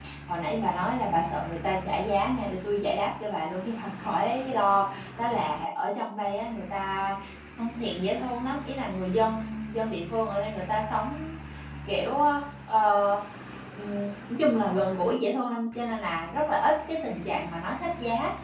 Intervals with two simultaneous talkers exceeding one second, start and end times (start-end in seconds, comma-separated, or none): none